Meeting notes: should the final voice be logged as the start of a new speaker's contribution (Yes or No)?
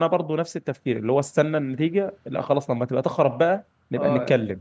Yes